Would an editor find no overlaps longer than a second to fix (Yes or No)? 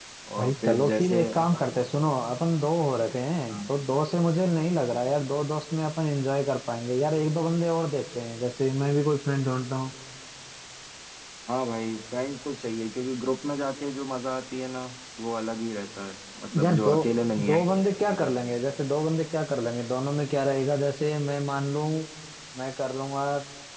No